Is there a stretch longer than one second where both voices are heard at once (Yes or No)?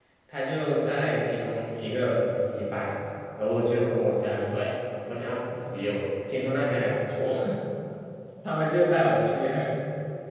No